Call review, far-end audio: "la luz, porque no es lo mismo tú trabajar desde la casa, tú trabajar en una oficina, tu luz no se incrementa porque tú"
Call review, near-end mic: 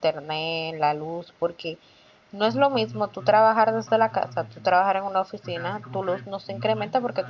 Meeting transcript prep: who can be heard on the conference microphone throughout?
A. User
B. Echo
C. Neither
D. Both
D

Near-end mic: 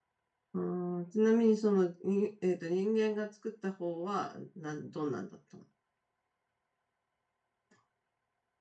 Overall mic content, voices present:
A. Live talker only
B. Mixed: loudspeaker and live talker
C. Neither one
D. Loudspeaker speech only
A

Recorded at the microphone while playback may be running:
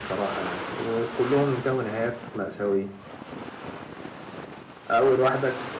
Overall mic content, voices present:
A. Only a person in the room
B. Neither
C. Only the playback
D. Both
C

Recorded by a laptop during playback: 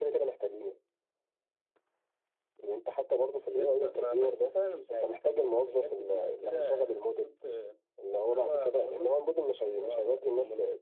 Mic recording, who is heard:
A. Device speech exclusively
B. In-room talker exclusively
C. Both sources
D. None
A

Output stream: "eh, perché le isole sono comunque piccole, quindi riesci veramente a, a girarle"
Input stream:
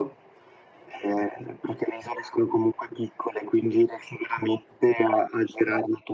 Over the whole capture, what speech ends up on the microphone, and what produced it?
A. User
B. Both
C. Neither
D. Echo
D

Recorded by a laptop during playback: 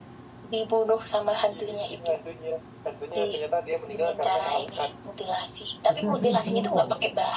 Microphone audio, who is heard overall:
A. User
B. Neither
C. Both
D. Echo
C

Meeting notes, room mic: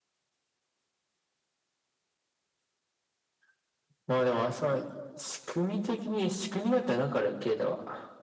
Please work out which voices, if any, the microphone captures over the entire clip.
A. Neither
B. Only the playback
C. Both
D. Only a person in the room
B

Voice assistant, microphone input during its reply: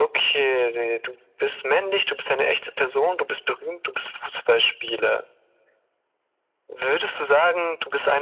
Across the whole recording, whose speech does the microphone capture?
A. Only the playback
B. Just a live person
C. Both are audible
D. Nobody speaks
A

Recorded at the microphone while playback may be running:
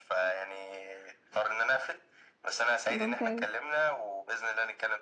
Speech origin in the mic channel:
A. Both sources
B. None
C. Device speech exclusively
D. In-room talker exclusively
A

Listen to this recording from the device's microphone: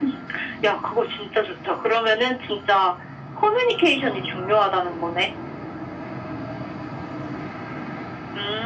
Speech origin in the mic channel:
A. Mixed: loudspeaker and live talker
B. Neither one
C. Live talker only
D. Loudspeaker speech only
D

